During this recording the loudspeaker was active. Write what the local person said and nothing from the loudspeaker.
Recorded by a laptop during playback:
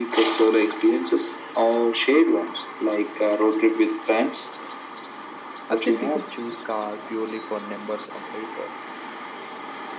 I've seen people choose car purely for numbers on paper,

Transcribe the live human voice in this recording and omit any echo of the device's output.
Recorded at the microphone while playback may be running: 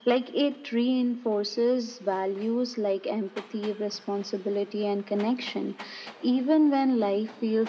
none

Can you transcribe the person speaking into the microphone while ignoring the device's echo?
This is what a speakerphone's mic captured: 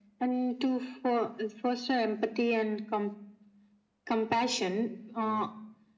none

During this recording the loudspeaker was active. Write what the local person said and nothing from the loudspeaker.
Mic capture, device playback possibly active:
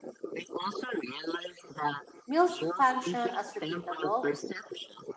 Meals function as repeatable,

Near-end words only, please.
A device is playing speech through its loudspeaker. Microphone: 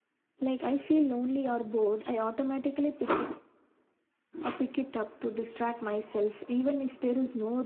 none

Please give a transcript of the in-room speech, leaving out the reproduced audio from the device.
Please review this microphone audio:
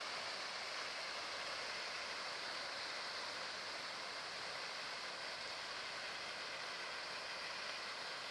none

